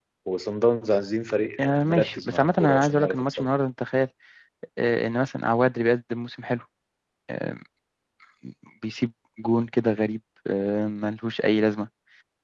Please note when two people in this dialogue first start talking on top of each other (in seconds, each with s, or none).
1.6 s